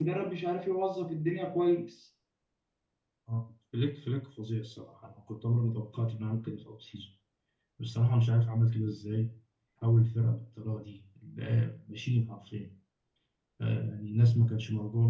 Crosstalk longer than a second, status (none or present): none